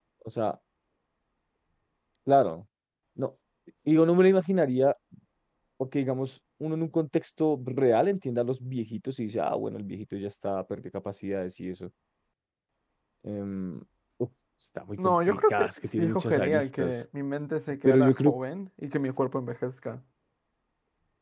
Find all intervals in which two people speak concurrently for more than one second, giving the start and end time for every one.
15.0-17.0

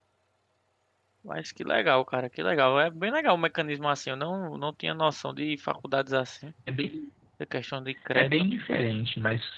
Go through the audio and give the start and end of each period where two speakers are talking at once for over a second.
none

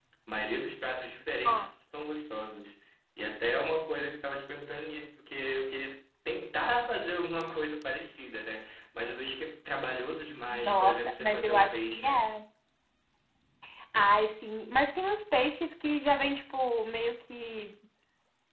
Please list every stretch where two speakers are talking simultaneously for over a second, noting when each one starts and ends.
10.5-12.3

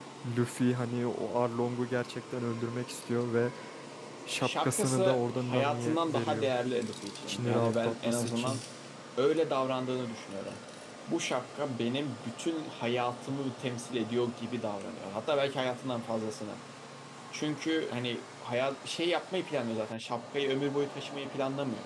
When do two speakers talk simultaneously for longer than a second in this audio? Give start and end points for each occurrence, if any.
4.4-6.5, 7.2-8.6

